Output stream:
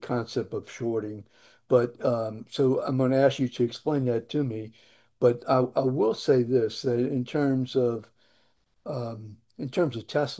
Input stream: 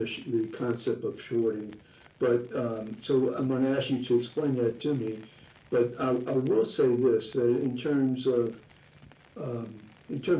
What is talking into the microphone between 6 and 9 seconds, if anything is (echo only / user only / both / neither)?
echo only